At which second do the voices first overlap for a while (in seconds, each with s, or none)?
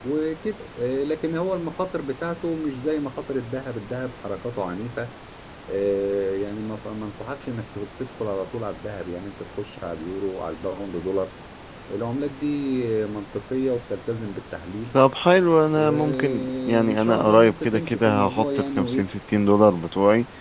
15.7 s